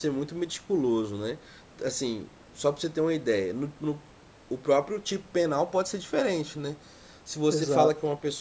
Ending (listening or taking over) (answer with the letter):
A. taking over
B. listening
B